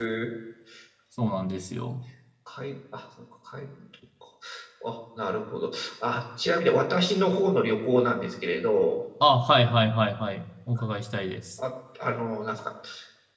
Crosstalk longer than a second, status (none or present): none